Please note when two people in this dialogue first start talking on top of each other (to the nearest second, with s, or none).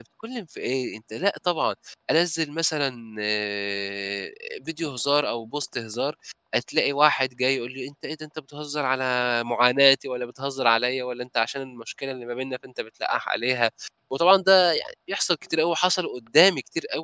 none